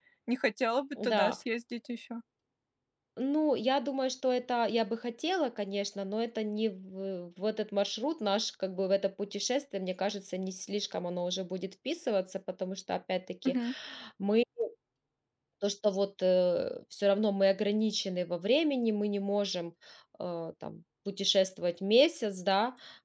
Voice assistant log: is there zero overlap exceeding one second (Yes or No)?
Yes